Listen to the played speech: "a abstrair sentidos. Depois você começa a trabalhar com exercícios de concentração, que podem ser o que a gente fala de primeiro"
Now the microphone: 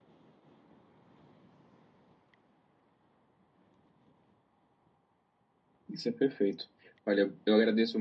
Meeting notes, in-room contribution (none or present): present